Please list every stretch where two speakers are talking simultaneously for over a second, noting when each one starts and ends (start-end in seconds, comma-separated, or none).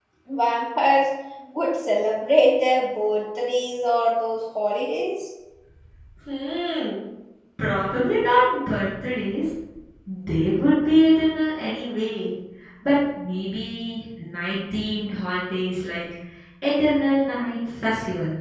none